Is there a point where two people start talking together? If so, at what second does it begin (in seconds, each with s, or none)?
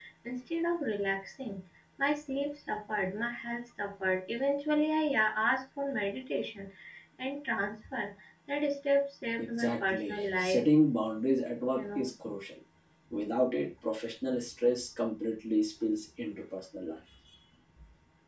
9.4 s